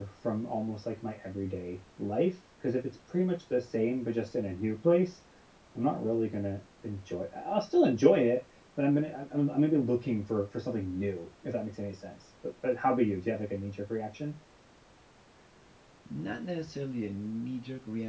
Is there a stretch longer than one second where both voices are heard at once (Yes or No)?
No